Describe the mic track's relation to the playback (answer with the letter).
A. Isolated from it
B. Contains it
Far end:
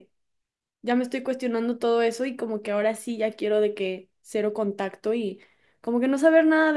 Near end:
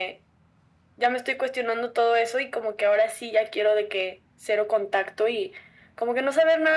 B